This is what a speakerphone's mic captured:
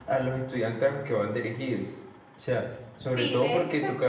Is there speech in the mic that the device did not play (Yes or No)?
Yes